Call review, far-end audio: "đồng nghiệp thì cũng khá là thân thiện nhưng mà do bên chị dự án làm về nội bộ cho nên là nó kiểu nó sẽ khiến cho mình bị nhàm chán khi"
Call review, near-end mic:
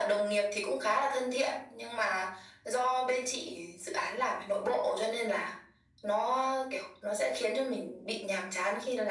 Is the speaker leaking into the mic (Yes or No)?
Yes